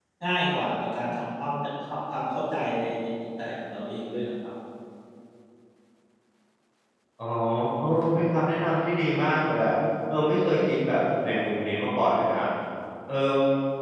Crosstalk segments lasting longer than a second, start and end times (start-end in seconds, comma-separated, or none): none